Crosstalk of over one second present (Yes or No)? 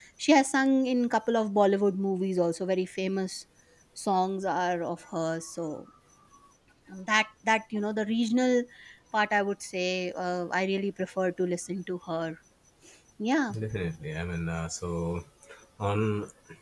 No